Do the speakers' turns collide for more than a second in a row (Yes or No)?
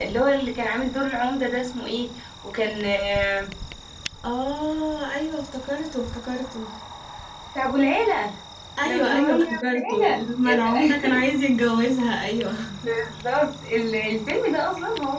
Yes